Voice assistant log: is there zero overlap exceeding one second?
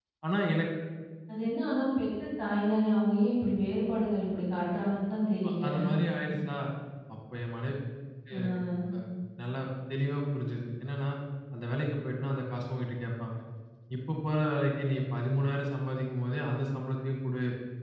Yes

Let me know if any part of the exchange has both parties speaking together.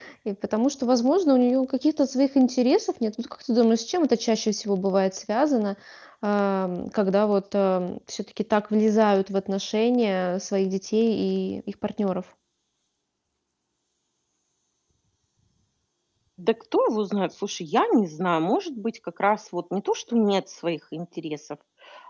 No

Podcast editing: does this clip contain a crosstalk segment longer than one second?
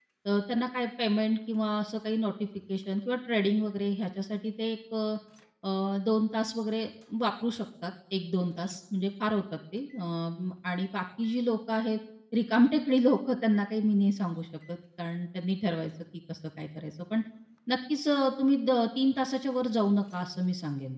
No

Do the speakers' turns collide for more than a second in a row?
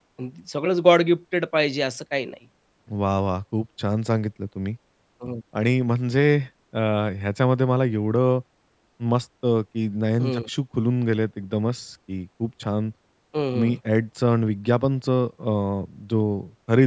No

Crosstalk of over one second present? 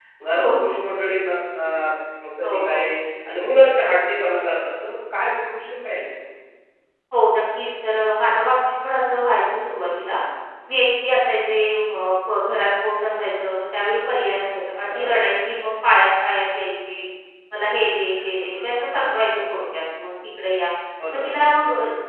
No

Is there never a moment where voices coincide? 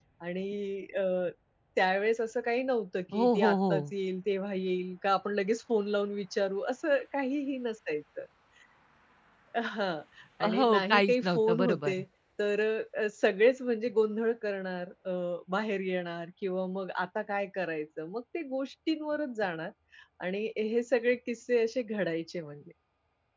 No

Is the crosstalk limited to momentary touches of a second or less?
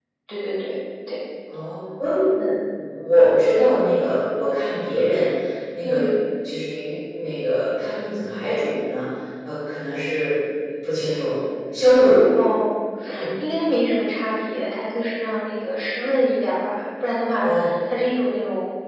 Yes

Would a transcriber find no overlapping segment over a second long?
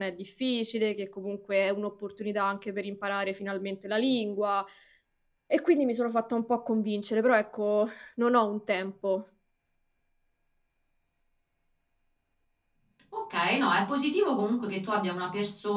Yes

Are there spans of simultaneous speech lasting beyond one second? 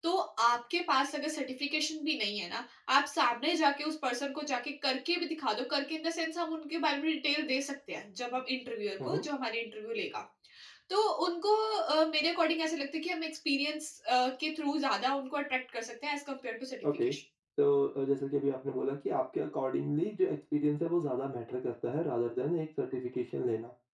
No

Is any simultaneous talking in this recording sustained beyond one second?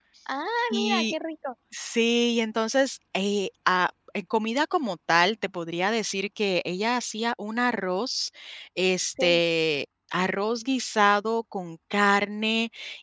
No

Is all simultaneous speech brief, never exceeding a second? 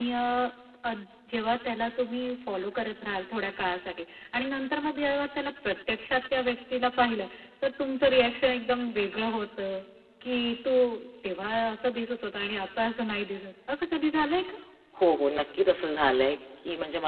Yes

